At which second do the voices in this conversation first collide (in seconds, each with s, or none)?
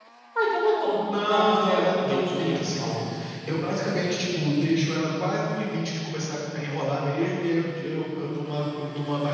1.3 s